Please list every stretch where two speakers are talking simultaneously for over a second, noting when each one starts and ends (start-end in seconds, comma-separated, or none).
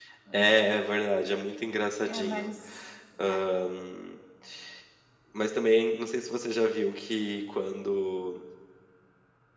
none